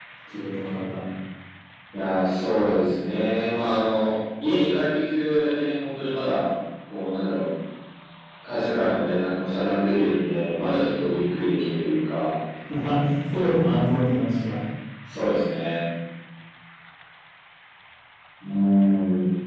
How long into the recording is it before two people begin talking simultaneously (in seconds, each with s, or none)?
none